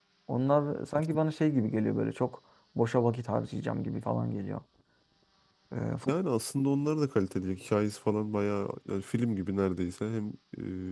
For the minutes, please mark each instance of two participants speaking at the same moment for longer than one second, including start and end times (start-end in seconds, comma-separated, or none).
none